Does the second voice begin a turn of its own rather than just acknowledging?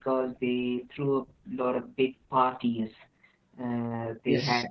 No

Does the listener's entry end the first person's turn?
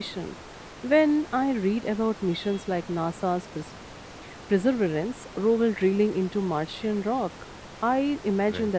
No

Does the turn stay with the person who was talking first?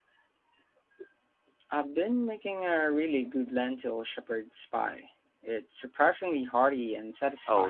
No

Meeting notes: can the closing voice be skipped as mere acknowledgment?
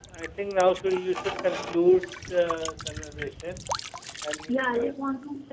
No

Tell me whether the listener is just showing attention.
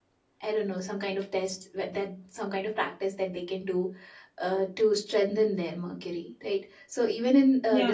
Yes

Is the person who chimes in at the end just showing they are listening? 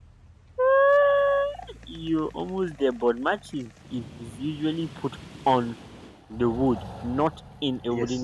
No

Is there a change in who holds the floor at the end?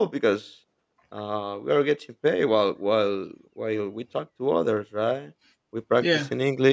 No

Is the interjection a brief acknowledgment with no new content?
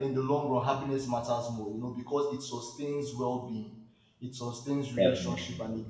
Yes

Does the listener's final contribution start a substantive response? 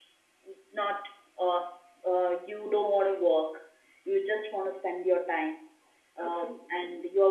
No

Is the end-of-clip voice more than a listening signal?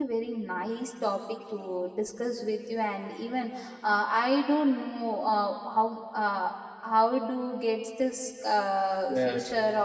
No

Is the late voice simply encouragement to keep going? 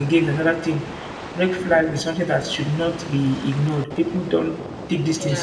No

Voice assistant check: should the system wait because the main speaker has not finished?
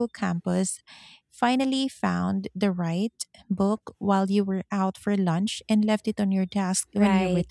No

